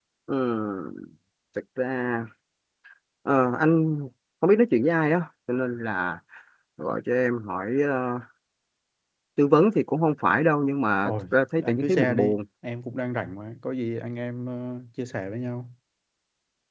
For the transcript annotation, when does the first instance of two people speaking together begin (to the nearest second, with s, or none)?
11 s